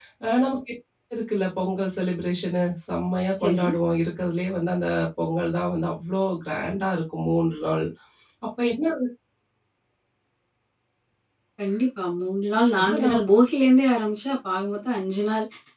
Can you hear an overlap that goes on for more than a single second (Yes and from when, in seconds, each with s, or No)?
No